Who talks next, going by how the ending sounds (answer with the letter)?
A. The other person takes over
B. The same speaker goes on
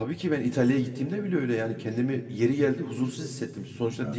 B